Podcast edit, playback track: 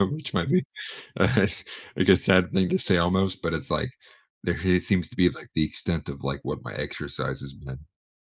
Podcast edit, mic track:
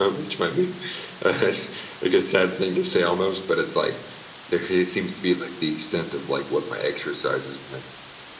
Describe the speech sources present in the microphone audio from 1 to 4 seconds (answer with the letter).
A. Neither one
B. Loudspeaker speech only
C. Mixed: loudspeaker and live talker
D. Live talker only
B